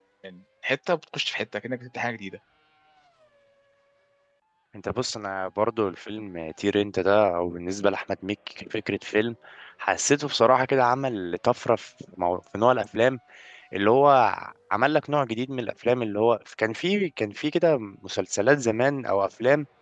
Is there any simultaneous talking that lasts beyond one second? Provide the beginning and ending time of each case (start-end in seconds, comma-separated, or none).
none